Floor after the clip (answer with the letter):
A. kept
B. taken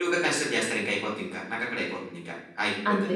B